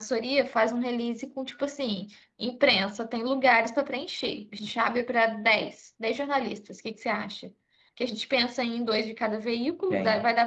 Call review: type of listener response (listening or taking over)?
listening